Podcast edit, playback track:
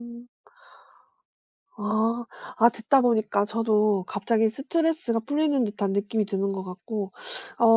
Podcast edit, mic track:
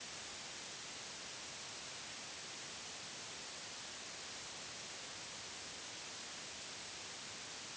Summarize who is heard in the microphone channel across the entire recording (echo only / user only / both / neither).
neither